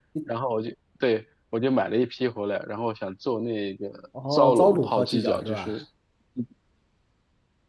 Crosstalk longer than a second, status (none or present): present